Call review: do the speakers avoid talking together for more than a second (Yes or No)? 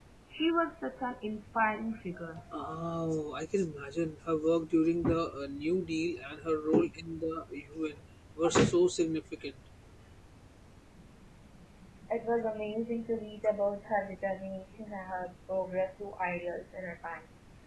Yes